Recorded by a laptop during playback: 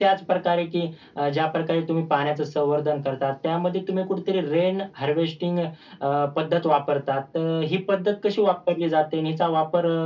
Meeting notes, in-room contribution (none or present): none